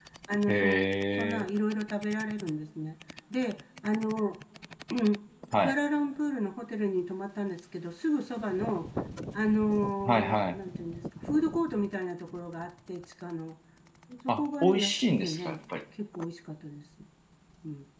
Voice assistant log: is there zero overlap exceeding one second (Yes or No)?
No